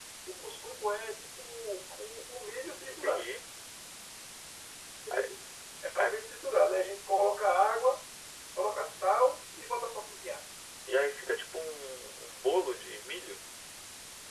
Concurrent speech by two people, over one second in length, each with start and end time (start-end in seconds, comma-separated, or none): none